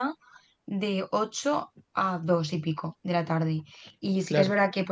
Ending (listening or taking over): listening